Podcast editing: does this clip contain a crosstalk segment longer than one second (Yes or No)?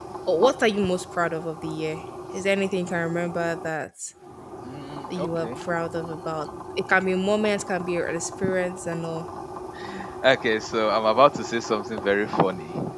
No